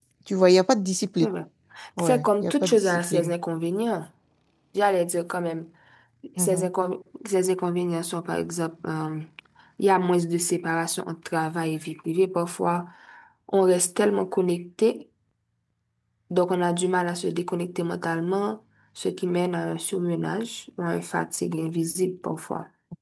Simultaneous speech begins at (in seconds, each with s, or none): 2.0 s